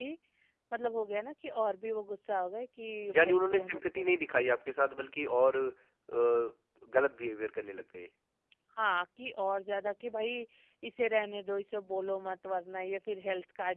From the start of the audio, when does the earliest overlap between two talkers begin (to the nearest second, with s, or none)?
3 s